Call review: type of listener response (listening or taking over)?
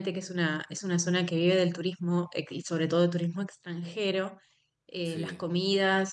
listening